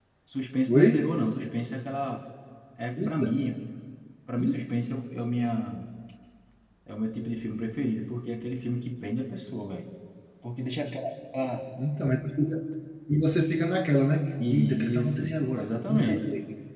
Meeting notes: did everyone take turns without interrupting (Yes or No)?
No